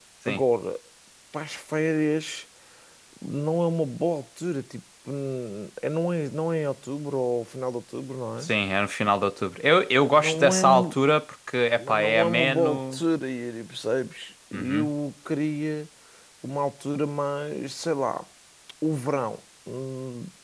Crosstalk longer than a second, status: present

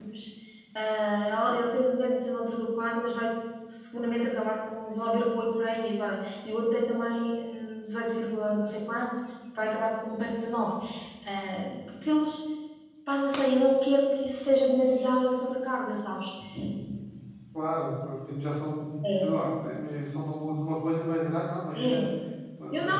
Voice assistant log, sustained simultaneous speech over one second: none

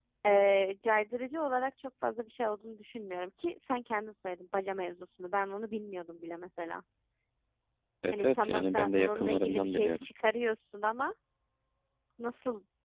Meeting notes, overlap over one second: present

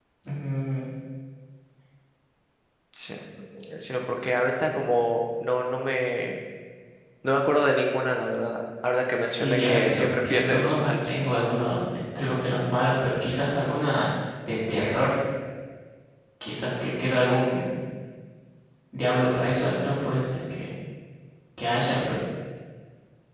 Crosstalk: present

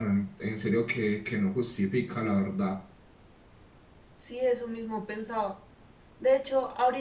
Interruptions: none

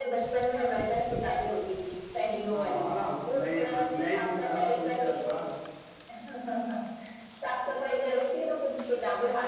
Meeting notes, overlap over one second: present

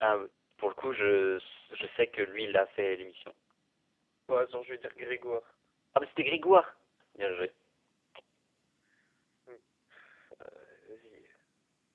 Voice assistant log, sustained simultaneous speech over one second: none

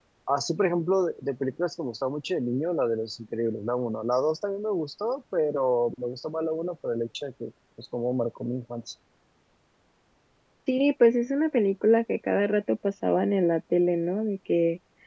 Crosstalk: none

